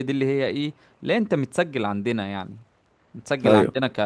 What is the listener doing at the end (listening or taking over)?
listening